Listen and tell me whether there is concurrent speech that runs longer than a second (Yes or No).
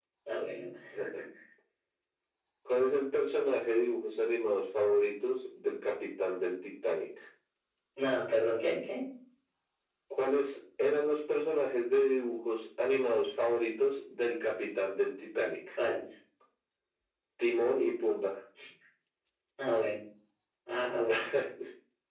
No